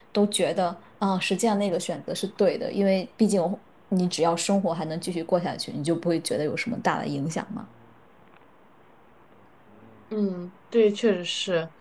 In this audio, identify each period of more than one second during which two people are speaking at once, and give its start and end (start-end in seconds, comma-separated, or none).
none